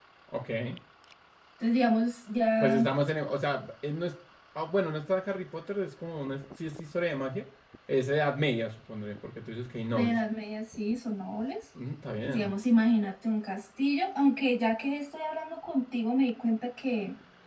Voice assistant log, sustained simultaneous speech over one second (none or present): none